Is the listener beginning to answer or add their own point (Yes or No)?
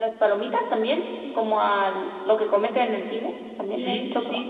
Yes